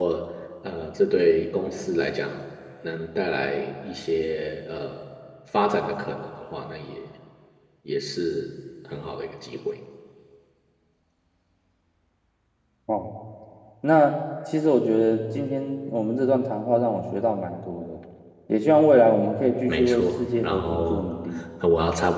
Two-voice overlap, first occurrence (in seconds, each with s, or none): 19.7 s